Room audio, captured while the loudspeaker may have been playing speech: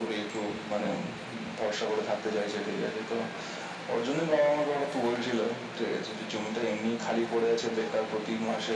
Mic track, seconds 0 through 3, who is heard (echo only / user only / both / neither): echo only